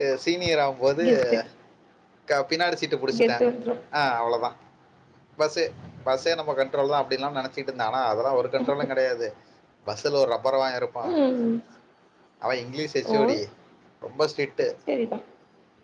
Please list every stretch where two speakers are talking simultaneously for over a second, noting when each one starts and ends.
none

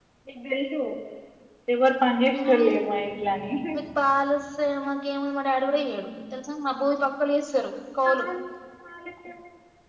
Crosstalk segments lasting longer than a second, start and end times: none

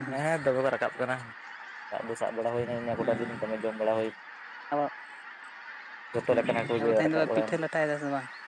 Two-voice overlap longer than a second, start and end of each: 6.3-7.7

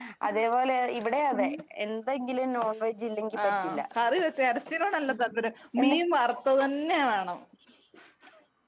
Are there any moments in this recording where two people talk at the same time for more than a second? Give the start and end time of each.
none

